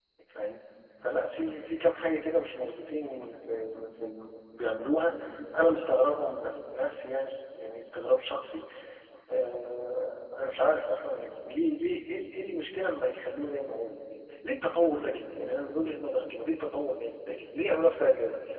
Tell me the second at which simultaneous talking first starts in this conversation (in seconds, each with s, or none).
none